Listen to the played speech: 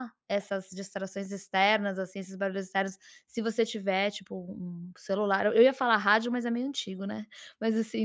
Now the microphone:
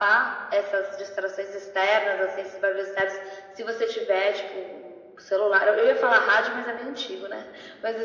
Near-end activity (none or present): none